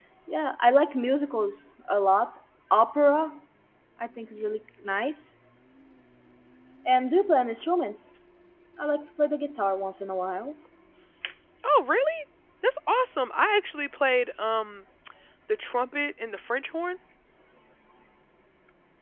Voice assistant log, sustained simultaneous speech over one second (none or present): none